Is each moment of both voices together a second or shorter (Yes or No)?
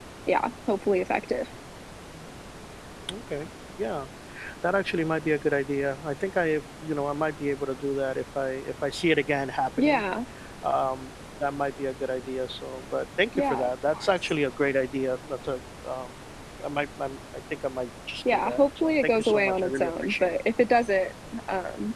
No